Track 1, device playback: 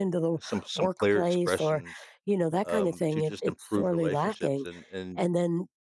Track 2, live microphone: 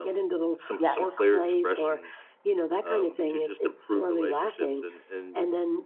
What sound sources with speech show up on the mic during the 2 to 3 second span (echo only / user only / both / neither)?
echo only